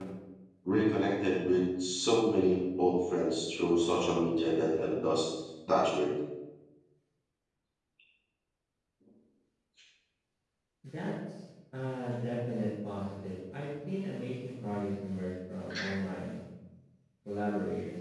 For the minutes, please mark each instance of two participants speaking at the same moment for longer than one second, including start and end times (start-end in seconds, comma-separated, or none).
none